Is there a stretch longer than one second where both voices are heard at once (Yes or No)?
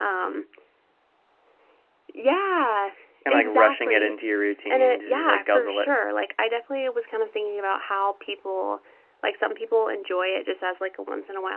Yes